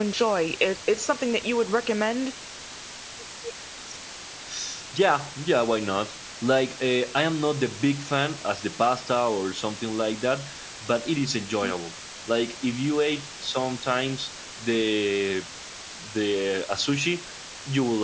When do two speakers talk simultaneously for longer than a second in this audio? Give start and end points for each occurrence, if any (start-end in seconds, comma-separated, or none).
none